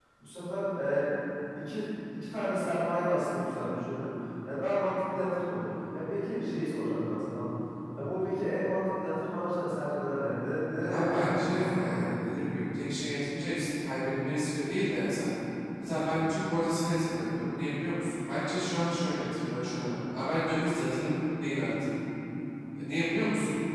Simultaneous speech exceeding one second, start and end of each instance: 10.9-12.1

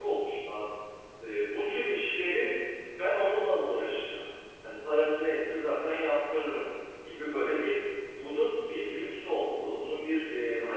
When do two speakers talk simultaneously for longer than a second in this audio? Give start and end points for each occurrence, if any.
none

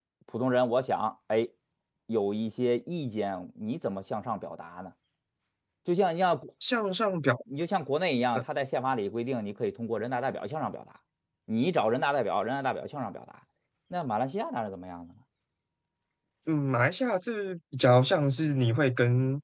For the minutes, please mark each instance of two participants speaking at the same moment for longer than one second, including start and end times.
none

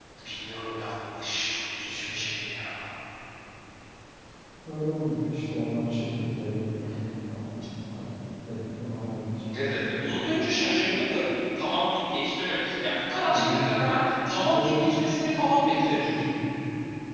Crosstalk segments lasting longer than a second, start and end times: none

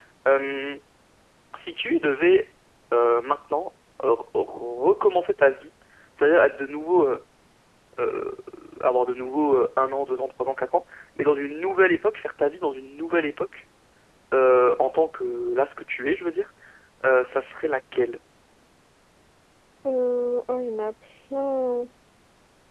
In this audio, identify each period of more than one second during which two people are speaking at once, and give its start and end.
none

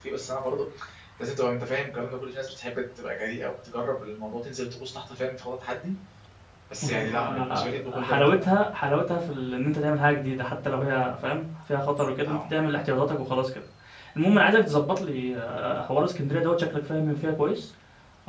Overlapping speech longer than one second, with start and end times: 6.8-8.5

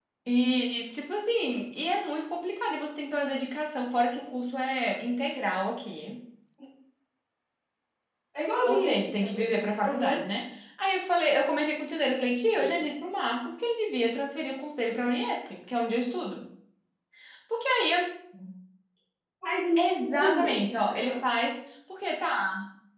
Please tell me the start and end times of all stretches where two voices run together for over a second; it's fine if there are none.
8.7-10.2, 19.8-21.2

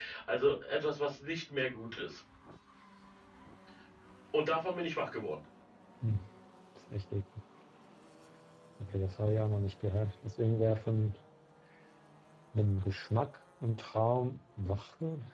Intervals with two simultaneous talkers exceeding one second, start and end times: none

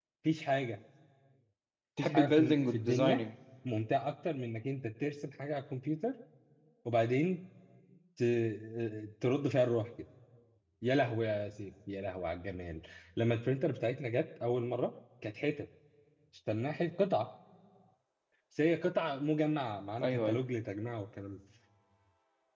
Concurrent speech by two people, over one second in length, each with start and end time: 2.0-3.2

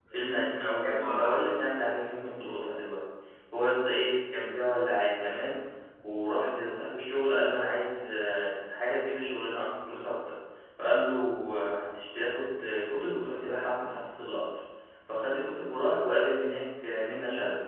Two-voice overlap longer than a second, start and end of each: 0.7-2.1

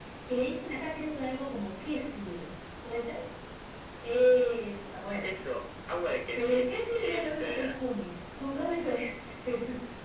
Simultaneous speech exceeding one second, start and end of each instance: 6.3-7.8

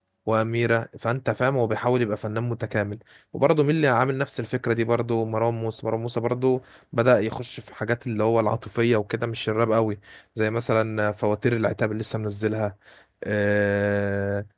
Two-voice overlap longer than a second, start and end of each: none

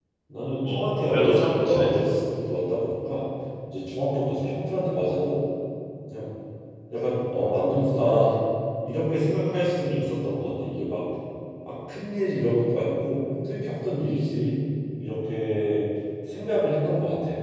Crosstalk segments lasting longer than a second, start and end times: 0.6-2.1

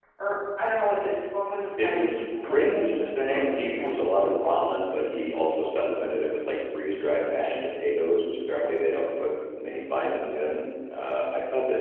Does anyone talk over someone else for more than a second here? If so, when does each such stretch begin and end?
1.8-4.2

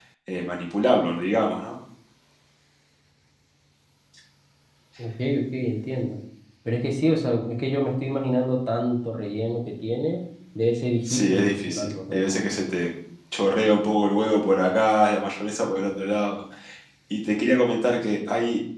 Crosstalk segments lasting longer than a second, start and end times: 11.1-12.4

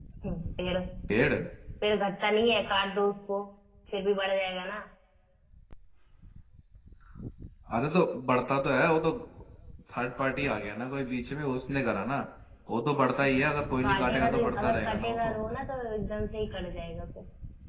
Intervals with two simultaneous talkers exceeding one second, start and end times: 13.8-15.3

